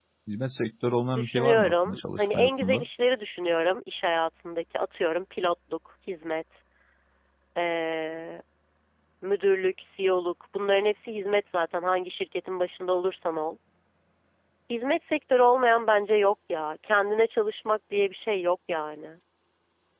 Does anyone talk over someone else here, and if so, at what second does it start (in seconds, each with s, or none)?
1.1 s